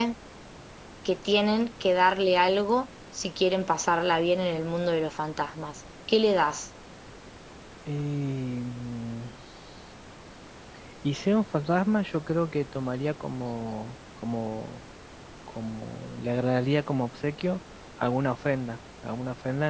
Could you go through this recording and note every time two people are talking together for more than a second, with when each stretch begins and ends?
none

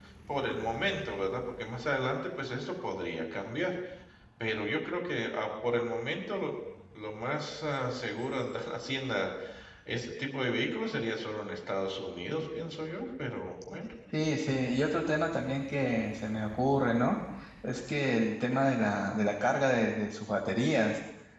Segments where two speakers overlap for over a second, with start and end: none

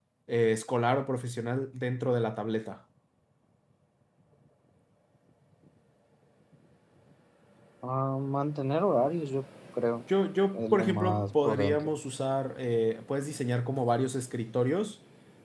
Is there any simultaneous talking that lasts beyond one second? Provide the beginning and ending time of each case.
10.5-11.9

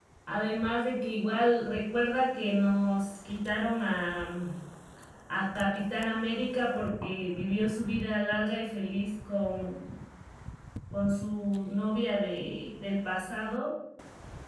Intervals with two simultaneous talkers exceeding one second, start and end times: none

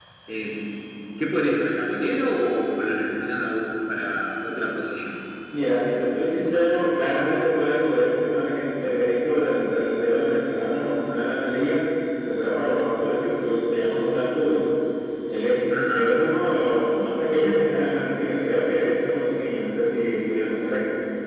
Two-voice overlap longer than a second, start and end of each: none

